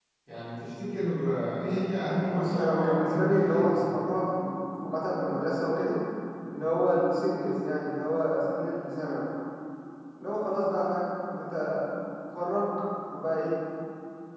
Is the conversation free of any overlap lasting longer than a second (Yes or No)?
No